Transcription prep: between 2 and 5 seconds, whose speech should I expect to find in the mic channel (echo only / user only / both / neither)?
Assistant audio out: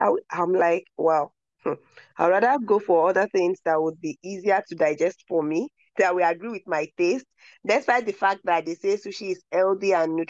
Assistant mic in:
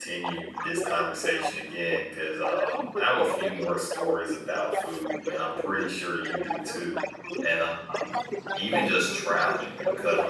both